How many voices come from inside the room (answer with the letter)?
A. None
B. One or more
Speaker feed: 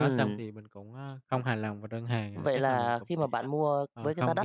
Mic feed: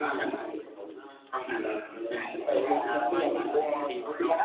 B